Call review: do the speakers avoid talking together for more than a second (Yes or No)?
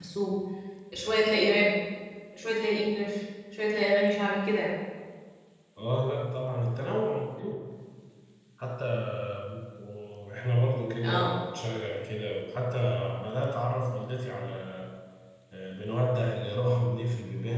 Yes